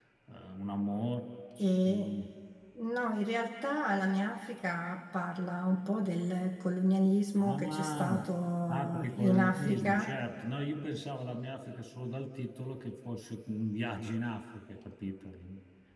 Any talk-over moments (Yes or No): Yes